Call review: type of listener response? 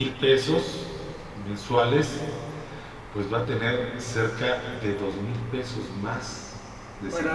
taking over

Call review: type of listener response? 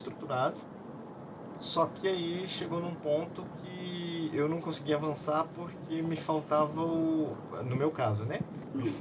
listening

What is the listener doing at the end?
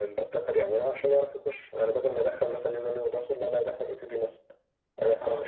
taking over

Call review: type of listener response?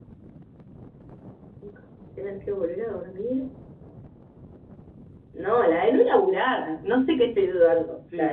taking over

